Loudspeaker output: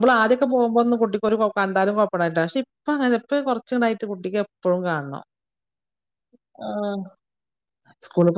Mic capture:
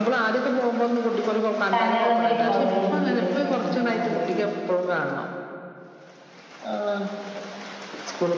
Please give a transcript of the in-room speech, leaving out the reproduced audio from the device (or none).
കനള്ള ടൈപ്പ് ആവും ആ ഇരുമ്പിന്റെക്കെ അങ്ങനെ ആവൂലേ